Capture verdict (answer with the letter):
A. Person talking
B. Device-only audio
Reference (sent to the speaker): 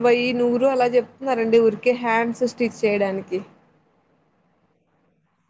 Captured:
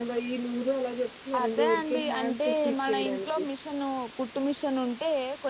A